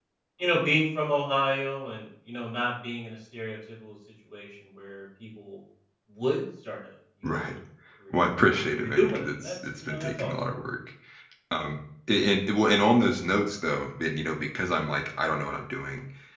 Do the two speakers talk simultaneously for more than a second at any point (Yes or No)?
Yes